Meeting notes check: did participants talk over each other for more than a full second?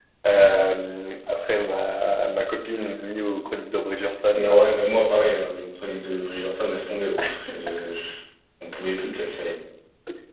No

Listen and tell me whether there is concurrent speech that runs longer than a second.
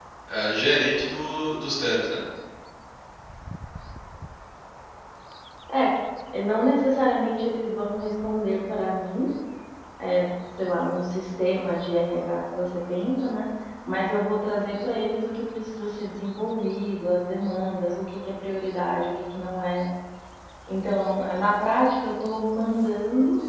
No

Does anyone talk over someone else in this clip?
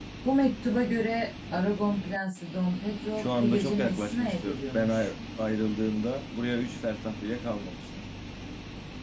Yes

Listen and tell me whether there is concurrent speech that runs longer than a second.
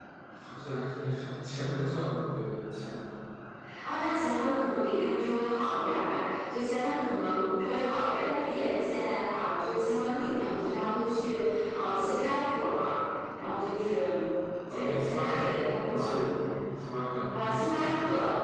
Yes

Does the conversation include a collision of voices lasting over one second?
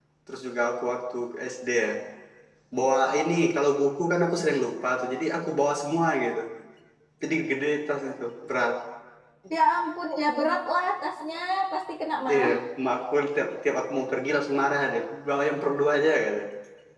No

